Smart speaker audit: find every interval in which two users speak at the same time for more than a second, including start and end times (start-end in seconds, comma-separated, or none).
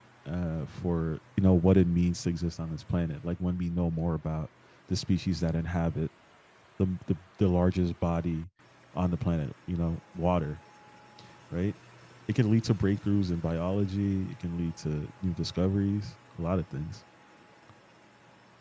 none